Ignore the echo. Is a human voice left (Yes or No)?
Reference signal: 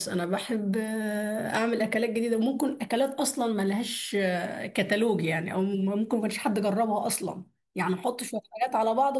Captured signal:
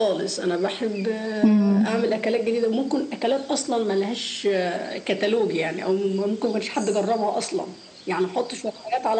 Yes